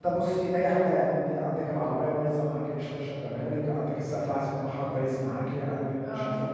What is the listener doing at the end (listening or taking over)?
taking over